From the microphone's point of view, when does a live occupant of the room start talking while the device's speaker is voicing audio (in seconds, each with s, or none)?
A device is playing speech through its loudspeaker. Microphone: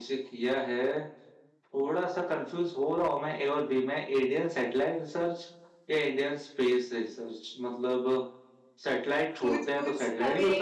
9.4 s